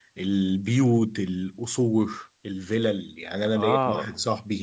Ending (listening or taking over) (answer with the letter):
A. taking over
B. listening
B